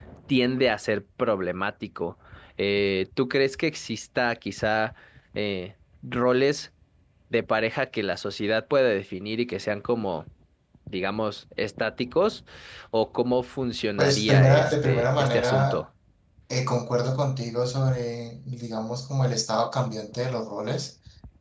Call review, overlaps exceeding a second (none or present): present